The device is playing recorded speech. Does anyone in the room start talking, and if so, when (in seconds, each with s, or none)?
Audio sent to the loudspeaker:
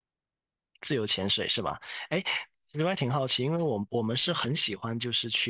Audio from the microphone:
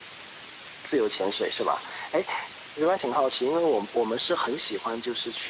none